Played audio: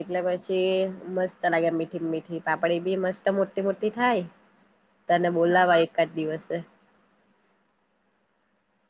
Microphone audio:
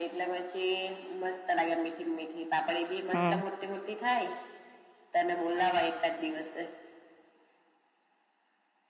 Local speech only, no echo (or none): હમ